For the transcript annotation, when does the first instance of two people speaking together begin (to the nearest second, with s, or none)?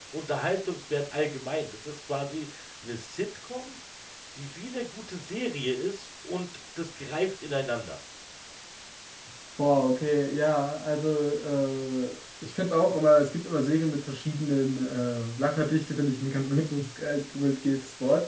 none